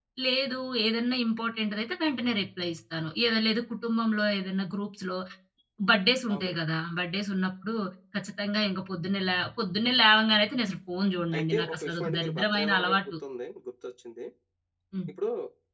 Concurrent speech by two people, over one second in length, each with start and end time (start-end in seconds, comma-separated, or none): 11.4-13.0